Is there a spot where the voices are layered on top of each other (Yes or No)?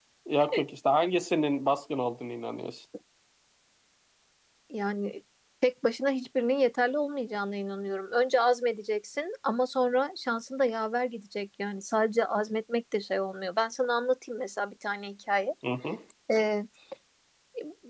No